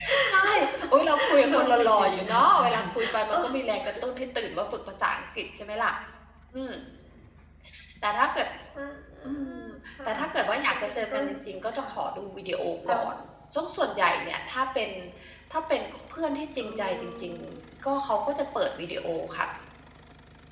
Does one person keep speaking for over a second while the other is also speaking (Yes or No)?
Yes